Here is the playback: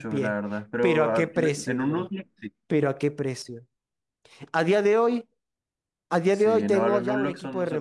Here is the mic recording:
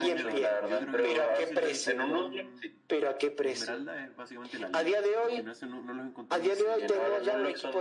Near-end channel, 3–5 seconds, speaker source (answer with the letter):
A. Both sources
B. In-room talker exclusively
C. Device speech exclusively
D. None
A